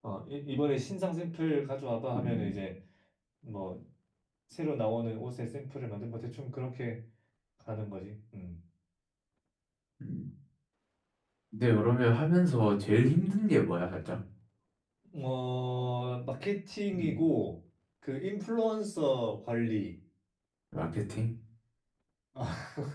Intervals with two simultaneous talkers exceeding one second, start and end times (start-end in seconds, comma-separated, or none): none